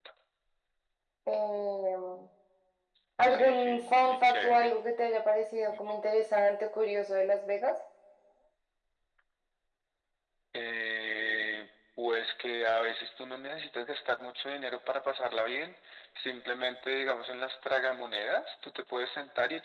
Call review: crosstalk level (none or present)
present